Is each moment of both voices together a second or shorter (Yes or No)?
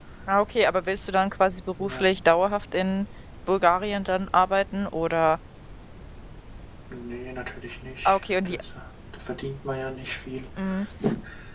Yes